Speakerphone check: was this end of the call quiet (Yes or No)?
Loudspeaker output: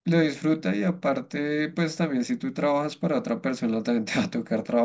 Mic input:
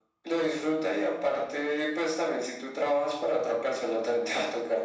Yes